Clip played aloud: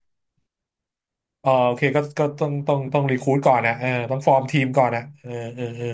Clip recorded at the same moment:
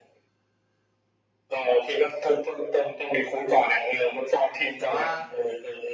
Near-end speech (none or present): present